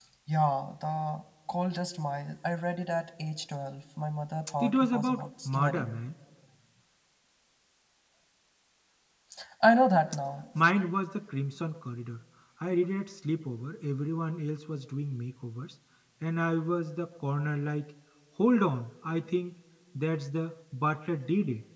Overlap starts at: 4.6 s

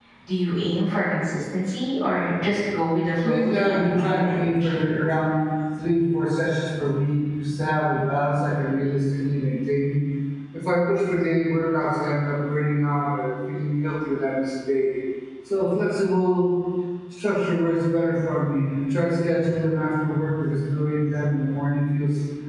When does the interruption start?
3.2 s

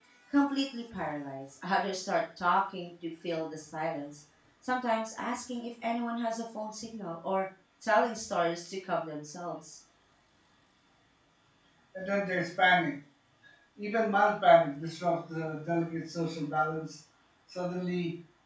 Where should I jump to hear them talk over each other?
none

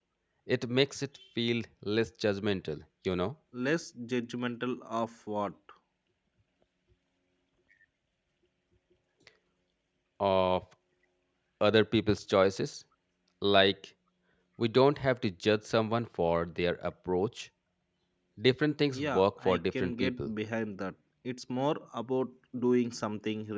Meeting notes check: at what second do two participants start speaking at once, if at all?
18.9 s

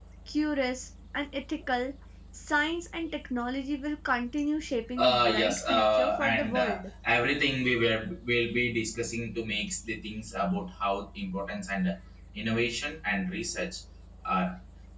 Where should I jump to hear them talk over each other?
5.0 s

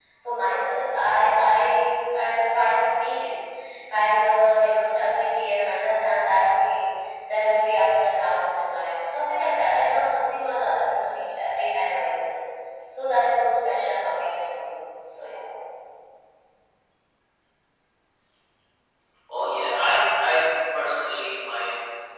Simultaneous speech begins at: none

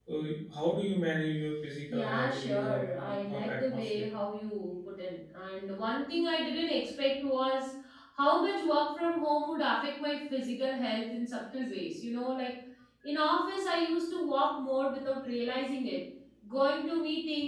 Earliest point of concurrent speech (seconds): 1.9 s

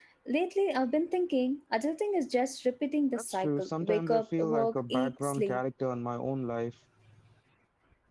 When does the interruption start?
3.1 s

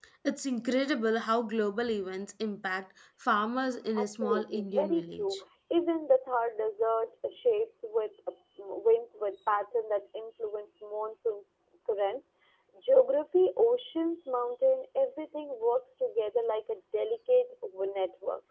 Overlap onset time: 4.0 s

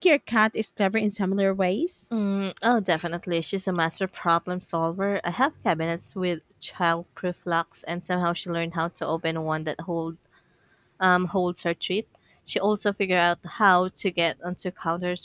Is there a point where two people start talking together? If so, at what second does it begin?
none

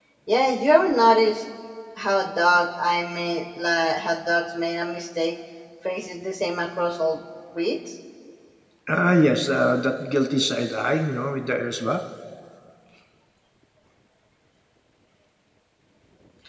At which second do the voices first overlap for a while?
none

